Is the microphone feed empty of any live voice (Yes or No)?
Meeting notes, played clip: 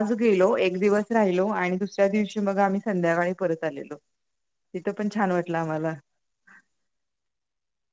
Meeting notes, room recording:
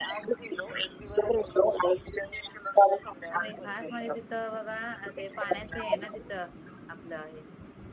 No